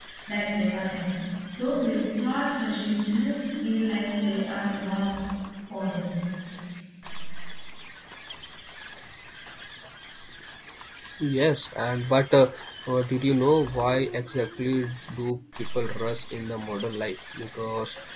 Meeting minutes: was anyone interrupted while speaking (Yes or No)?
No